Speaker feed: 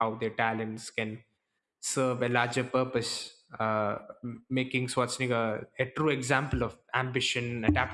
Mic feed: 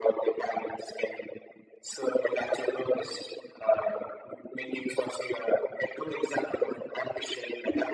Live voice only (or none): none